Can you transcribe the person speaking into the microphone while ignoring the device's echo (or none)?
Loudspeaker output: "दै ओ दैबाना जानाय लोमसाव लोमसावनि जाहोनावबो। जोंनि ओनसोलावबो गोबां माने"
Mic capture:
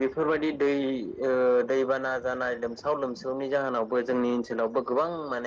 none